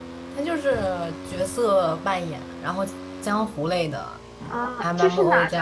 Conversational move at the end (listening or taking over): taking over